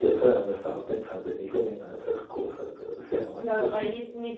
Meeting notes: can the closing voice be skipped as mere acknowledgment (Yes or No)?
No